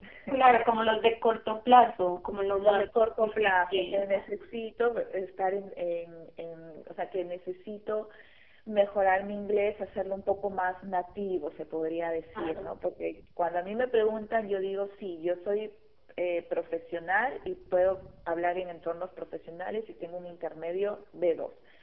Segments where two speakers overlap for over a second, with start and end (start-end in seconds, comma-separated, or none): 2.6-4.0